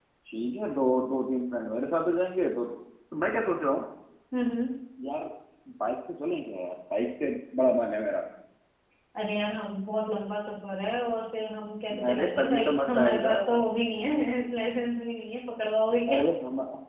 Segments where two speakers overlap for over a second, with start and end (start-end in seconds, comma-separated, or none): 12.1-13.4